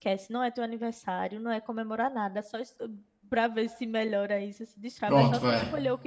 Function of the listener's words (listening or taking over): listening